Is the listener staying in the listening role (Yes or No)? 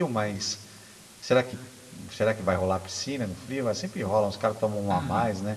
No